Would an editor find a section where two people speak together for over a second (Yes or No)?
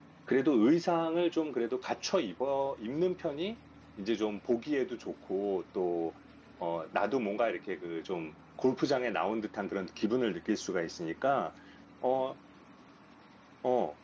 No